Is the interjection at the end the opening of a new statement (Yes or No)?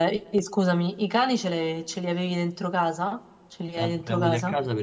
Yes